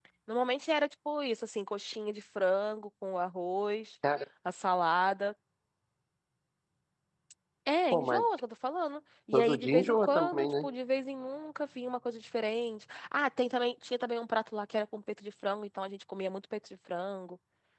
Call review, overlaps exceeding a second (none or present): present